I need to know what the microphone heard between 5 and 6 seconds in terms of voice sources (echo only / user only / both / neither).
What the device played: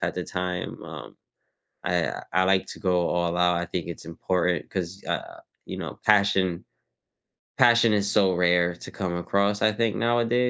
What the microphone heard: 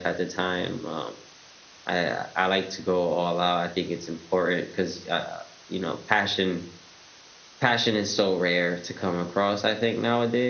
echo only